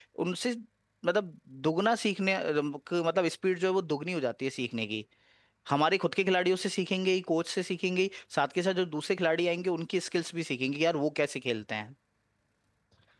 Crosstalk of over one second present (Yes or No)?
No